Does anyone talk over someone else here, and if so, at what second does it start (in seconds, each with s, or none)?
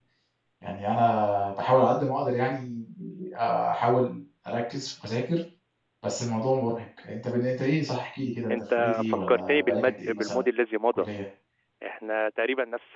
8.5 s